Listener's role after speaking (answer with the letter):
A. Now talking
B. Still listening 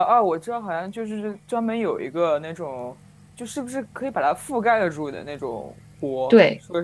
A